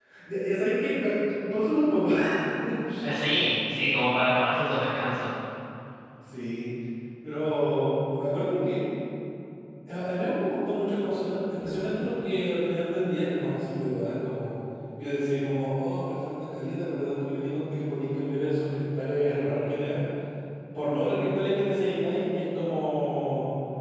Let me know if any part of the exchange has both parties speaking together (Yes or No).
No